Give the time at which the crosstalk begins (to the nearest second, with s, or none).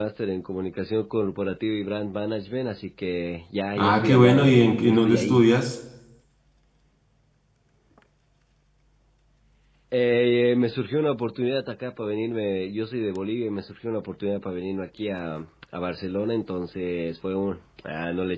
4 s